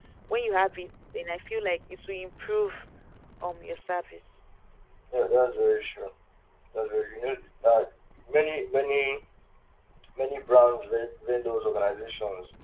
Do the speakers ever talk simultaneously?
No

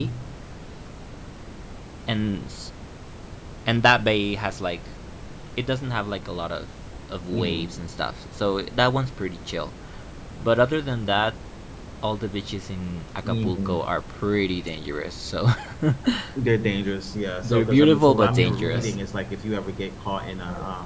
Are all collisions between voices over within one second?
No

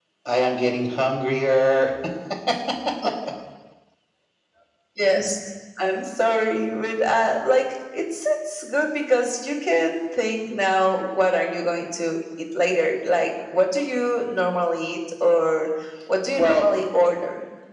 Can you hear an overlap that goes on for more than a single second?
No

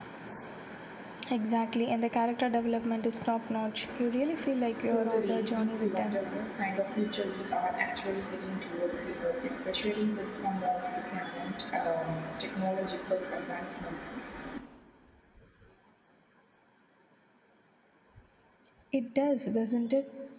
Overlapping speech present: Yes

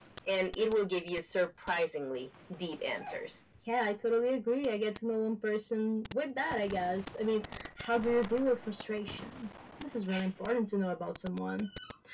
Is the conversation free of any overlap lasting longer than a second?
Yes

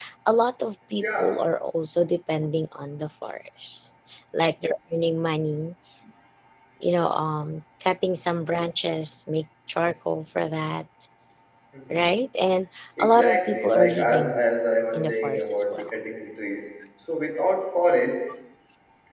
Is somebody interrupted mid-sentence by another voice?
Yes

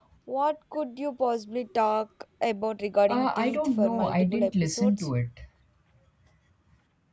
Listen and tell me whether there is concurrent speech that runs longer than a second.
Yes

